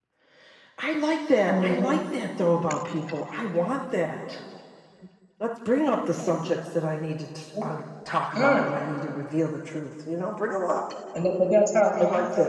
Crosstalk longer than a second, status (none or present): none